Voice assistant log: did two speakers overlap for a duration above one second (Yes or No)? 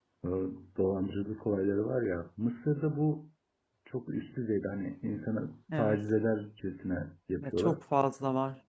No